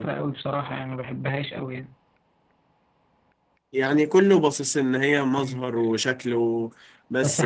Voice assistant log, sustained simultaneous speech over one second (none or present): none